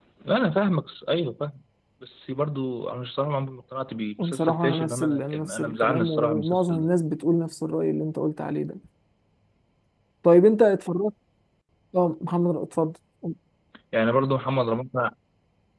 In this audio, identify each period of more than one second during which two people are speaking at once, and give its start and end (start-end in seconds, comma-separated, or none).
4.2-6.9